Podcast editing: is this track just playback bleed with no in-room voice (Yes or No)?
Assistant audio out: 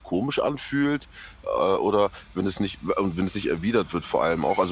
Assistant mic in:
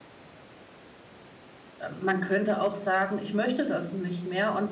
No